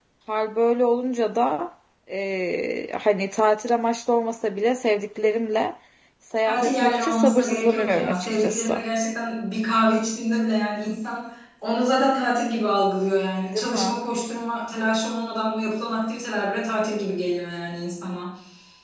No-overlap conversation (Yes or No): No